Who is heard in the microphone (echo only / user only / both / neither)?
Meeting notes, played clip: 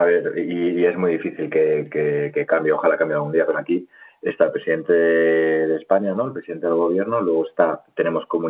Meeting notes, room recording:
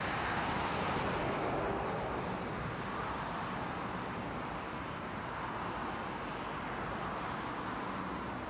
neither